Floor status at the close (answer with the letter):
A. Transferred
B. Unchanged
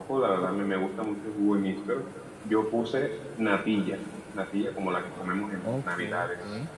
A